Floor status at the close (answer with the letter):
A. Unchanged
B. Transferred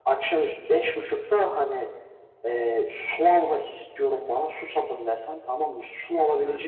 A